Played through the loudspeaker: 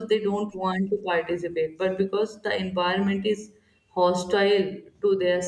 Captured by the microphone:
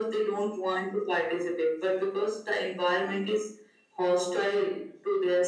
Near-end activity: none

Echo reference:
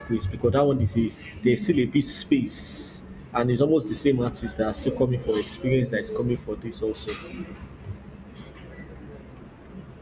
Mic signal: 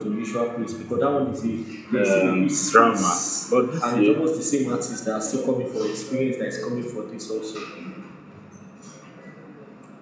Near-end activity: present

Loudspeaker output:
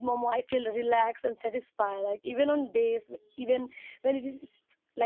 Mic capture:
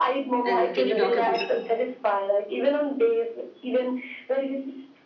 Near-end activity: present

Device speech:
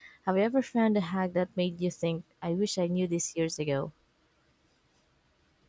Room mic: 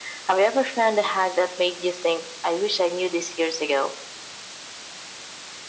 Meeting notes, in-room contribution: none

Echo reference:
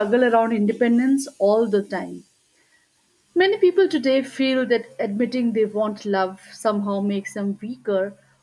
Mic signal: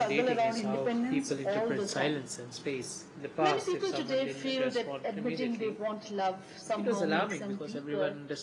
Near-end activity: present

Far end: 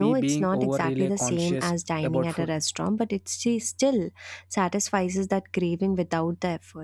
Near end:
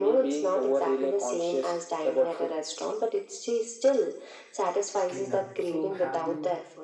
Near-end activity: present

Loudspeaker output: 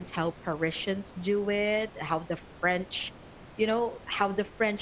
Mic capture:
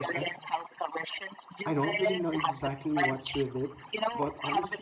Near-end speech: present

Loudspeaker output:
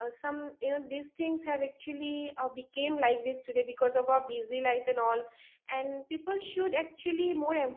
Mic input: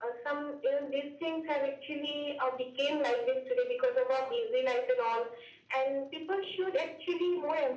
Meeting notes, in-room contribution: none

